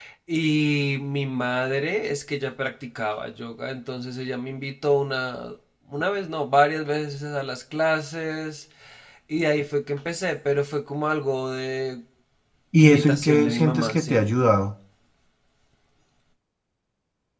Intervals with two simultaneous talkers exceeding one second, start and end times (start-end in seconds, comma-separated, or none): 12.8-14.2